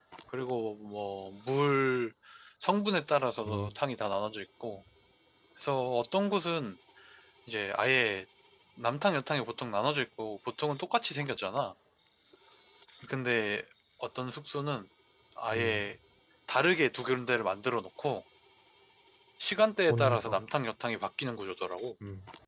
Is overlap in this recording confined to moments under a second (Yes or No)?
Yes